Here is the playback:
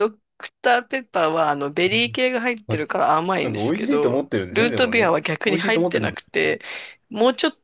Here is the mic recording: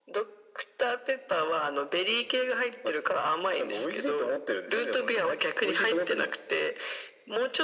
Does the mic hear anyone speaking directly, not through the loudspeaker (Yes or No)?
No